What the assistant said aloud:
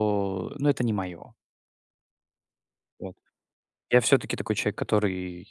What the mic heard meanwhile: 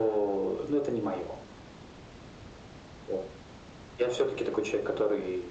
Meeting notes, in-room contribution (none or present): none